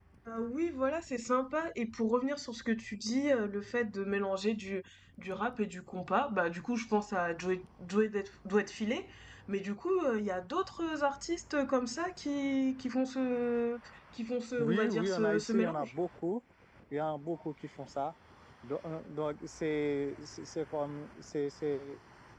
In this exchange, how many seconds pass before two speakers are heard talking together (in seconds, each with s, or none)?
14.6 s